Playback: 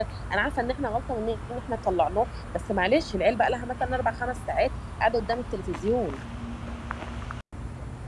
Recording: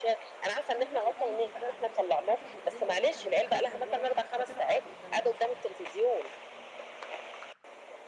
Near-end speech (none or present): present